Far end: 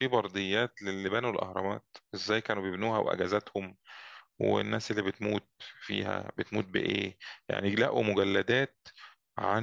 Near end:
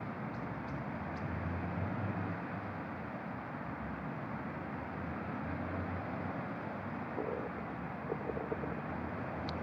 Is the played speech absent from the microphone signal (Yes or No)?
Yes